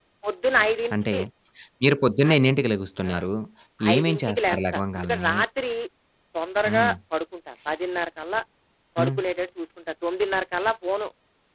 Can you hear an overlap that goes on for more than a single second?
Yes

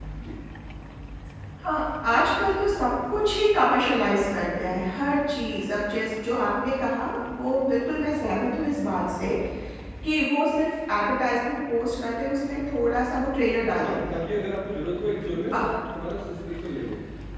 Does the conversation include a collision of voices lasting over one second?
No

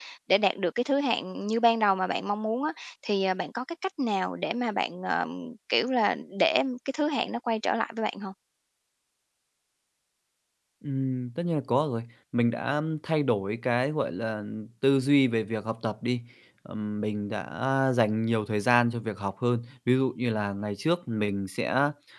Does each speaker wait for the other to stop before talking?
Yes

